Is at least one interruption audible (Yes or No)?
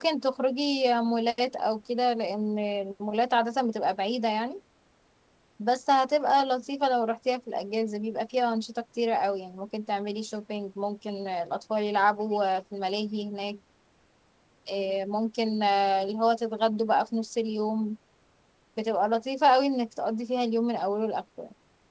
No